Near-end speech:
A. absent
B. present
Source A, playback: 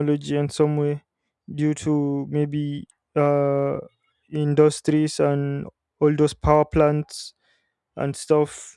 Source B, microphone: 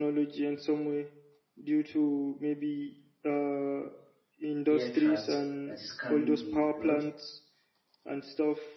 B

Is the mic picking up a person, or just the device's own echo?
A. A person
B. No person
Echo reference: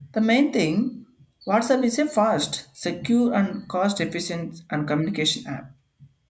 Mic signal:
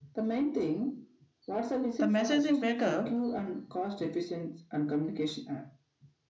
A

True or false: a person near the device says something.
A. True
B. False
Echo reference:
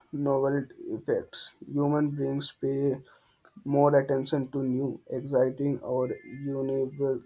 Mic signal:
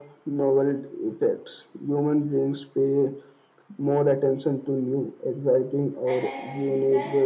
A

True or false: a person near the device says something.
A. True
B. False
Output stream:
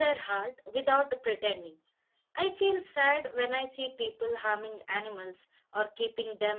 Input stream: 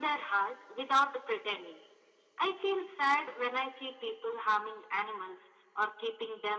B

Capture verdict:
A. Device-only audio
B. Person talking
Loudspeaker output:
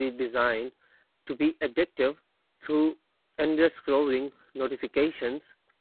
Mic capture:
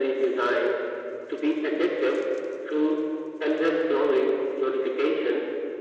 A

